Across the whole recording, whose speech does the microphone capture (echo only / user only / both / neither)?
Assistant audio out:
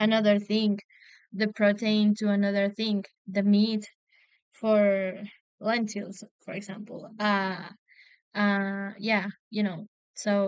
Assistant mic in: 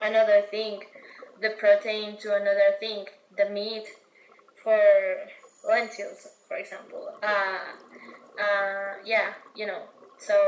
echo only